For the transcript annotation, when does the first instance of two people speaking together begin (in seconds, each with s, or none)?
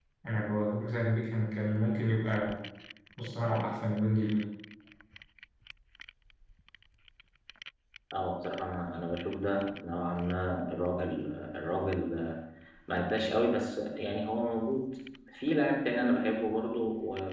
none